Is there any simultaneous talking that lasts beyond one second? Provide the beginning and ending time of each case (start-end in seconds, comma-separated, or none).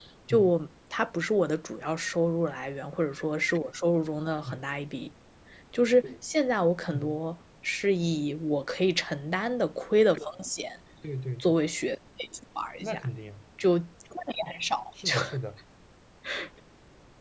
none